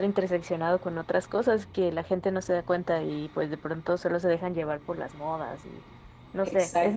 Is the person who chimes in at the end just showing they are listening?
No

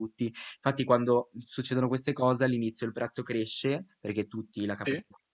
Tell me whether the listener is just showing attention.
Yes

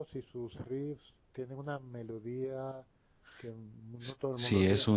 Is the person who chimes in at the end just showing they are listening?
No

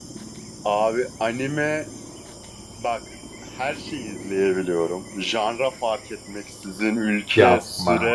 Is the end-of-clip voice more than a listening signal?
No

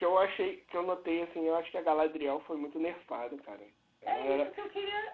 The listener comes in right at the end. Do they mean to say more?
Yes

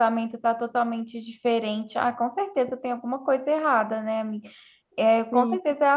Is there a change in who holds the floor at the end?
No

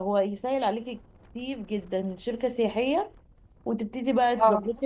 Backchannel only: Yes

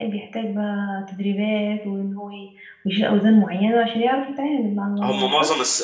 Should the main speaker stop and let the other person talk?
Yes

